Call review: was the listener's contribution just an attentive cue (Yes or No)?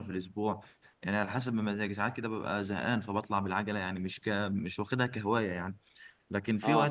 Yes